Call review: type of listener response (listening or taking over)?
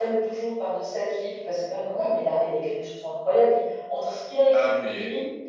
listening